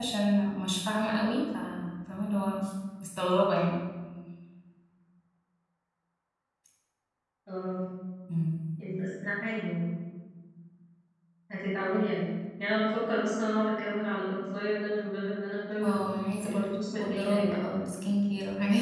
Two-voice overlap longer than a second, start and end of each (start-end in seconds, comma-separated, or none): 16.4-17.7